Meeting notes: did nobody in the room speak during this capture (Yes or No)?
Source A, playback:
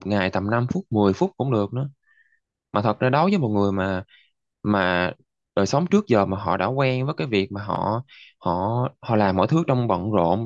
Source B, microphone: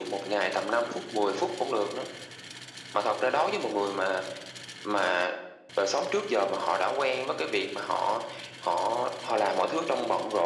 Yes